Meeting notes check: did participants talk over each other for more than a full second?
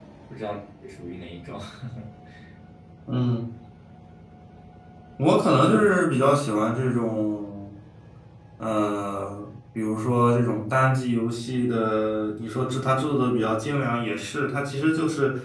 No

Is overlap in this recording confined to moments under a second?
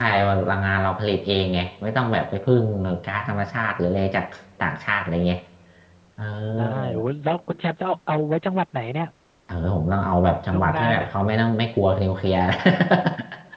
Yes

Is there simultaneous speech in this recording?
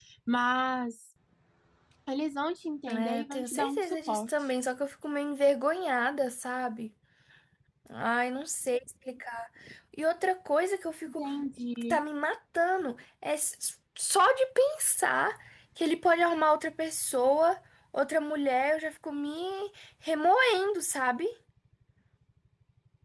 Yes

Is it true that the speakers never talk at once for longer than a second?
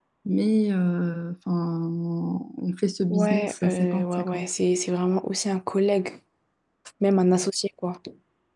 No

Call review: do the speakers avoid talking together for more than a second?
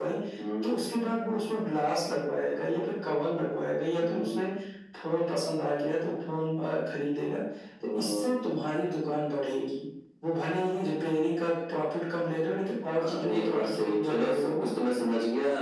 No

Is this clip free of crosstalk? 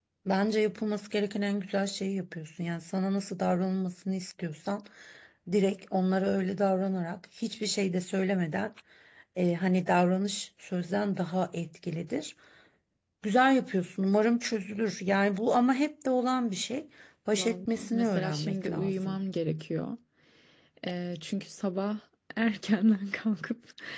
No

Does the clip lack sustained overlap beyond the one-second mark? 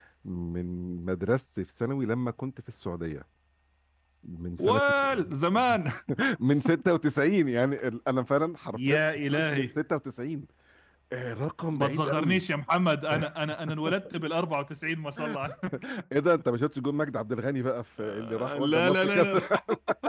No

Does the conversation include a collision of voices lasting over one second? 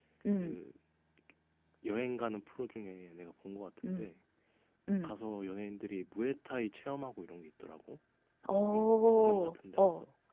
Yes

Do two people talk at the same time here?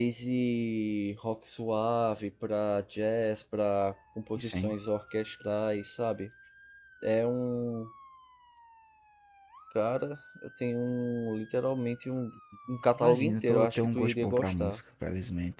Yes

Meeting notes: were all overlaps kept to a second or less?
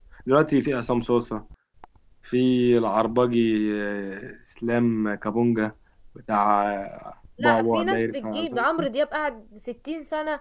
No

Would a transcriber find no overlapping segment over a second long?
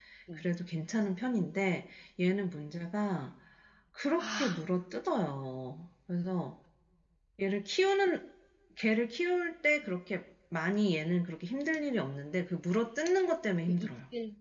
Yes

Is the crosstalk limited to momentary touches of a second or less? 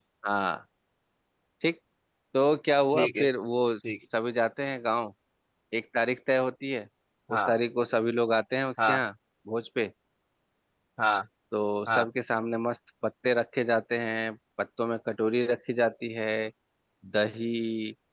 Yes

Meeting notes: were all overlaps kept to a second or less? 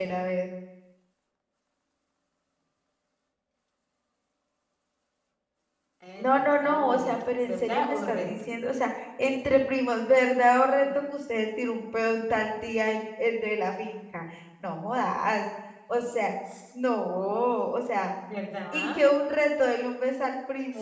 No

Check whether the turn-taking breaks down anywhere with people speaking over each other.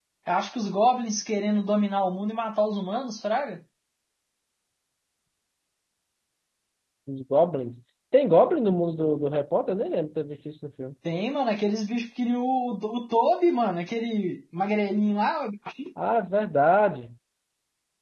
No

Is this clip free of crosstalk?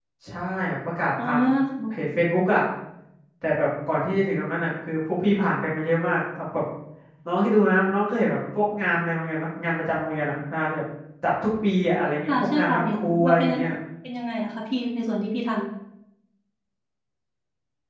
No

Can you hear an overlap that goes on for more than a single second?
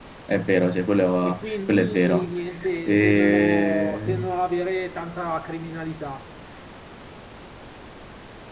Yes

